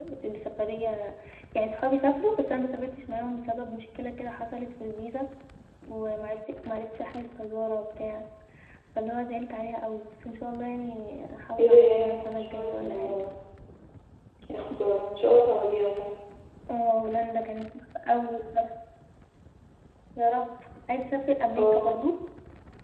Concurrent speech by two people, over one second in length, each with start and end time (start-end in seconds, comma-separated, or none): 11.6-13.2